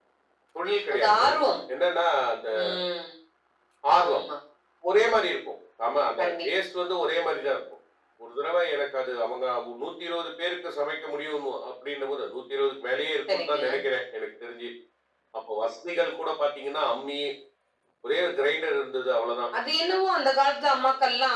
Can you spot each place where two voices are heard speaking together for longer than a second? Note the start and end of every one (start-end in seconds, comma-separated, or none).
none